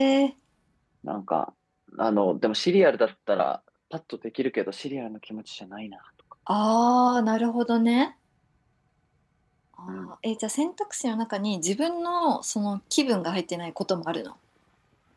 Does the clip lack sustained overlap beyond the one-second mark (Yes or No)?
Yes